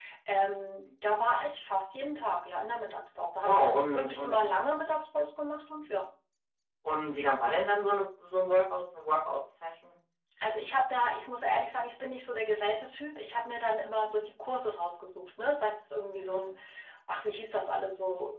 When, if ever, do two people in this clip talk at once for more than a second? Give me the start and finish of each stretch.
3.4-4.6

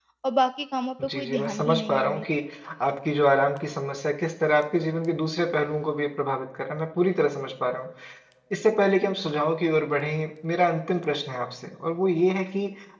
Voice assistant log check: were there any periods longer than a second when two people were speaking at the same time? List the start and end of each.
1.0-2.2

